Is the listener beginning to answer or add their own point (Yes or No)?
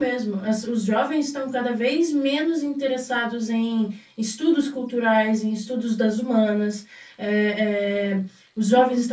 No